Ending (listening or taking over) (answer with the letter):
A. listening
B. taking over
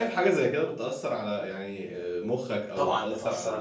B